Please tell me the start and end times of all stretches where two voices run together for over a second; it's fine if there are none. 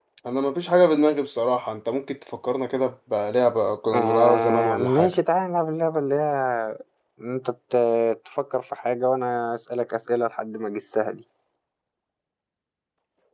3.9-5.1

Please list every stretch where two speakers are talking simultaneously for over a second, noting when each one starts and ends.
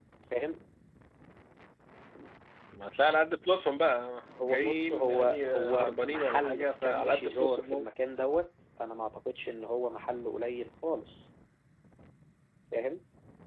4.4-7.9

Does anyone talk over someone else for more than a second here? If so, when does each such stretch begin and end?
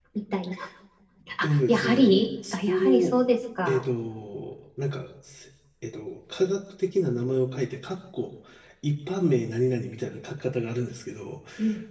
1.4-3.1

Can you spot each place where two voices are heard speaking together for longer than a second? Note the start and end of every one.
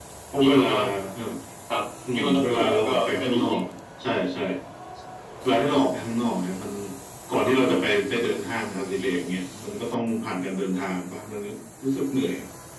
2.1-3.4

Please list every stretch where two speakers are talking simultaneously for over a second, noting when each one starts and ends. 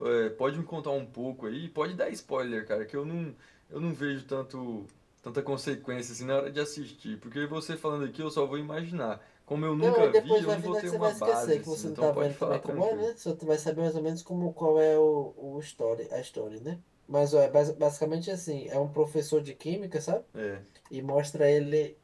9.8-13.1

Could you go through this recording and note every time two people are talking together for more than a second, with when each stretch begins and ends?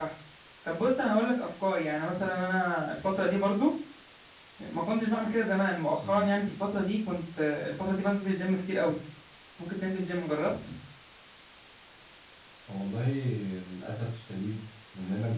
none

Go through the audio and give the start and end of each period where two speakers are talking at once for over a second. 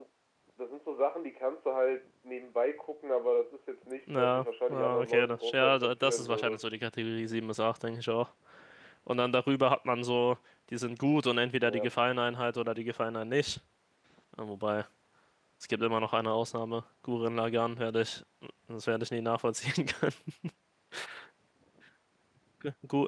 4.1-6.6

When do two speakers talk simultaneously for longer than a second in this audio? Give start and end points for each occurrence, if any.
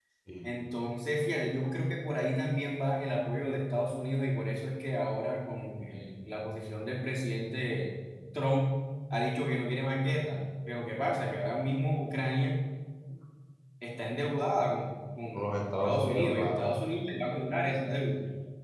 15.4-16.7

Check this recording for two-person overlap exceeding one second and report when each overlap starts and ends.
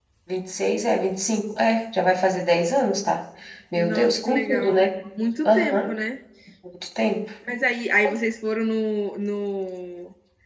3.8-5.1

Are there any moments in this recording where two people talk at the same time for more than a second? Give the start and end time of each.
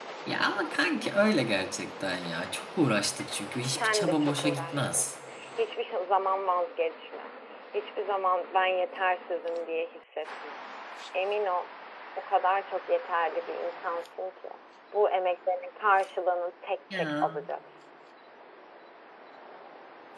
3.7-5.1

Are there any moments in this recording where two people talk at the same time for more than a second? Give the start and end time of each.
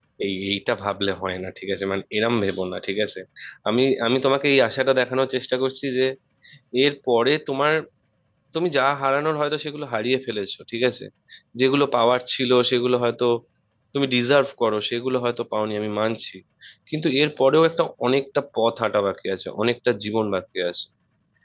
none

